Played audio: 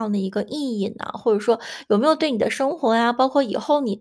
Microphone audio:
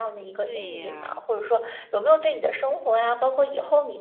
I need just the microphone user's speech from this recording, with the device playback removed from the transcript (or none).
对呀，